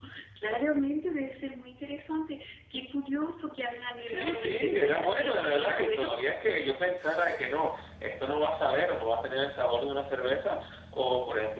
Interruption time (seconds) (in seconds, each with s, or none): 4.0 s